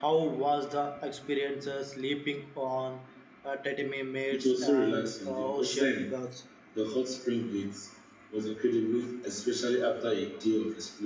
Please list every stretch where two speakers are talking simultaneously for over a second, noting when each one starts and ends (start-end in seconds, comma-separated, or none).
4.3-6.1